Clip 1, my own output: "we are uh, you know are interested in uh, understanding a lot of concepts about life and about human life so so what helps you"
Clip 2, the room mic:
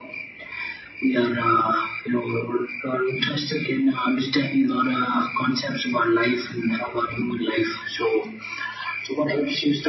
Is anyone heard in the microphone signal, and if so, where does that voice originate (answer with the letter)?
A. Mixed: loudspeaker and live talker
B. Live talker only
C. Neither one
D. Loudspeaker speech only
D